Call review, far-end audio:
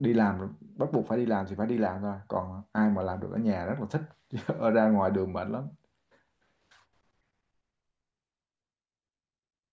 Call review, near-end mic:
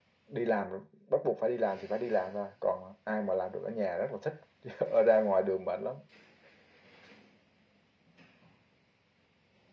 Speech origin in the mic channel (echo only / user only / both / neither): echo only